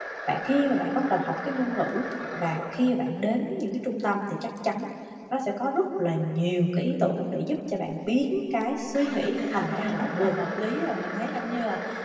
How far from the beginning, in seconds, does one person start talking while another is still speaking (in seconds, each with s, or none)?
9.1 s